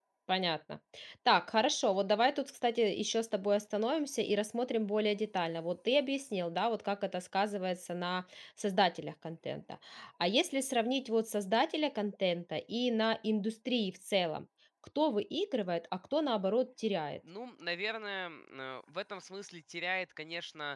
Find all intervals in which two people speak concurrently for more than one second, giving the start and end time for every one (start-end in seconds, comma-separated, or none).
none